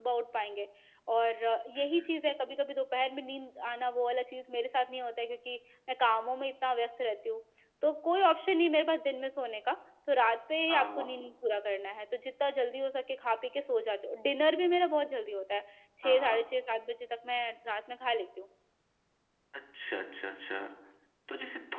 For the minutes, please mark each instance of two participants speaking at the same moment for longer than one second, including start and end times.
none

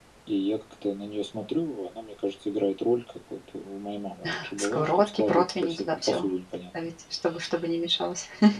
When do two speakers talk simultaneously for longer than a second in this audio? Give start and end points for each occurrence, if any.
4.2-6.3

